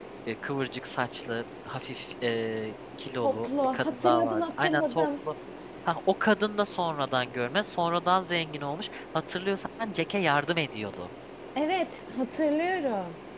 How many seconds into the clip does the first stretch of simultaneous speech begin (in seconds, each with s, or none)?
3.2 s